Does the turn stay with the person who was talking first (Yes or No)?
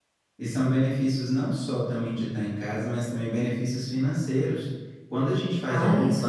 Yes